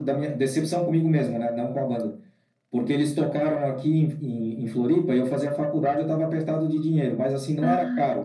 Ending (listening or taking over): listening